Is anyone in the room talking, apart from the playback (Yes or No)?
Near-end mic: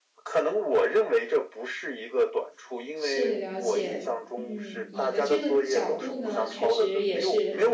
Yes